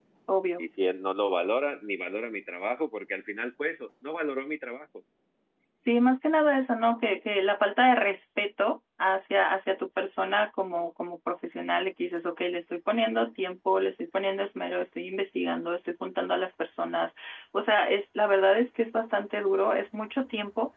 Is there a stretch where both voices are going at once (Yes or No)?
No